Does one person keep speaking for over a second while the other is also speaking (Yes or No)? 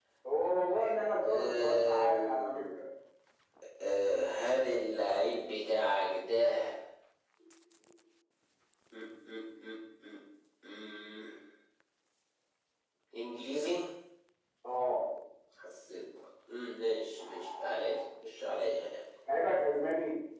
Yes